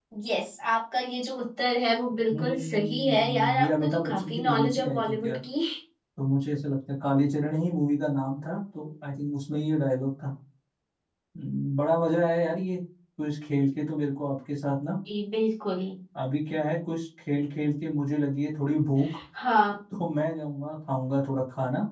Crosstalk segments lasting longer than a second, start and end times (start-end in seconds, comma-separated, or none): 2.3-5.3